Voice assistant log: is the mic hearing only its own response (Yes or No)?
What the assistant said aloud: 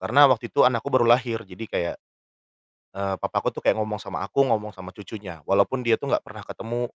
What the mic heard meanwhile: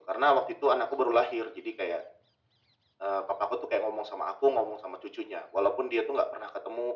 Yes